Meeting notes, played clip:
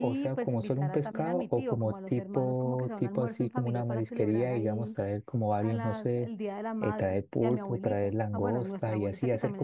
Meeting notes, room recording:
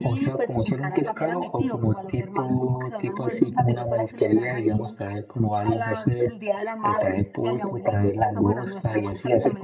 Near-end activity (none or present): none